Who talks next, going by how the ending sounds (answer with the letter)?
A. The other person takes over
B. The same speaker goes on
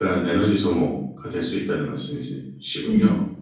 A